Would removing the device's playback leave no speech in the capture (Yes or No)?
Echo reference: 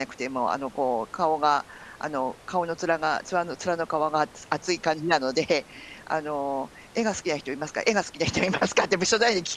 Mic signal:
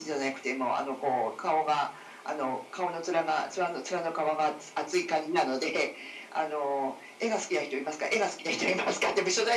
Yes